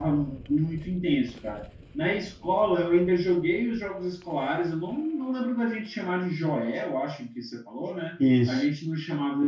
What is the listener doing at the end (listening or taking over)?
listening